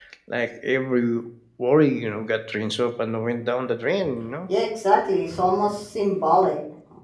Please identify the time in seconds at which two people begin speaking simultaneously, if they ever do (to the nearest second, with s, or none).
none